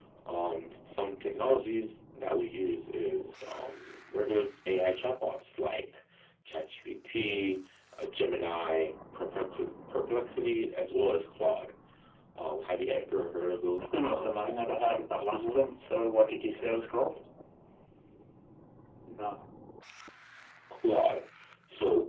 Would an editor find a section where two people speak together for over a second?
Yes, from 13.8 s

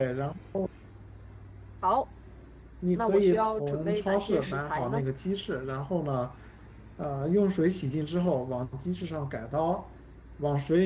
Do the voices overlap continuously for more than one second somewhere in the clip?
Yes, from 3.0 s

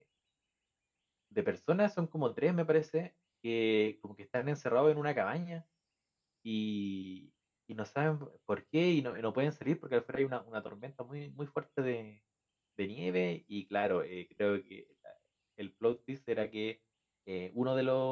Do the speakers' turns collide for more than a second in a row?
No

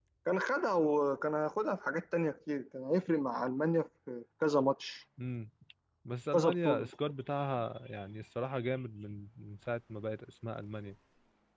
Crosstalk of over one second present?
No

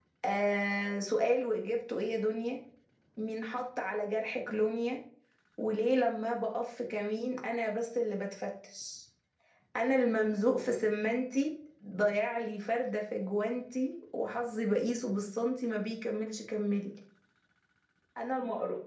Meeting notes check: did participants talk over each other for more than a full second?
No

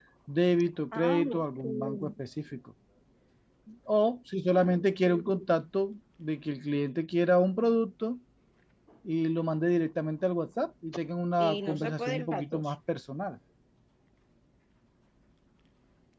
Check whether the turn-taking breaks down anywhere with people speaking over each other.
Yes, from 0.9 s

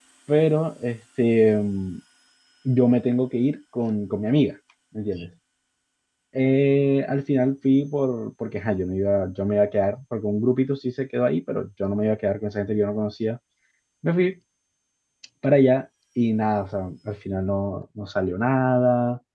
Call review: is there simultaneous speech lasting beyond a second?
No

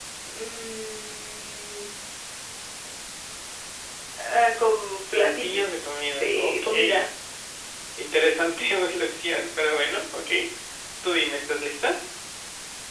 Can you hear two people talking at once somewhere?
Yes, from 5.1 s

